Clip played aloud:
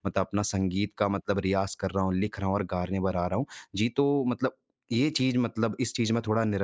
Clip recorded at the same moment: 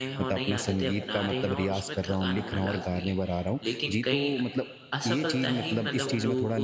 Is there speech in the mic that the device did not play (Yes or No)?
Yes